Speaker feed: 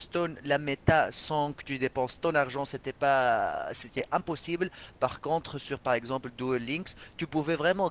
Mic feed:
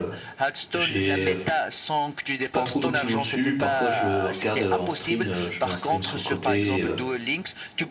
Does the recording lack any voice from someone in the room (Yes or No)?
No